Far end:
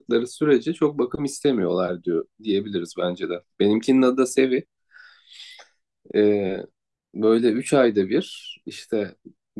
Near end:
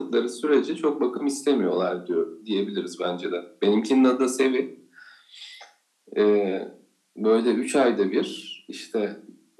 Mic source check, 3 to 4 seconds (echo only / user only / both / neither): echo only